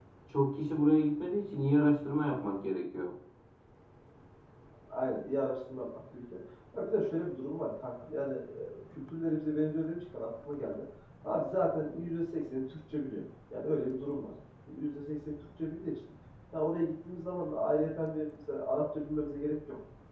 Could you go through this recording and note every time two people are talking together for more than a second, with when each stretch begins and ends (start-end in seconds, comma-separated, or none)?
none